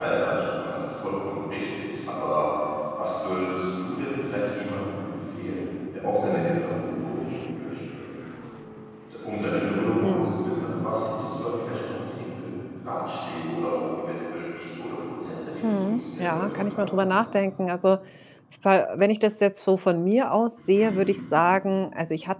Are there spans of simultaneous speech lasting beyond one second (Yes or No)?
Yes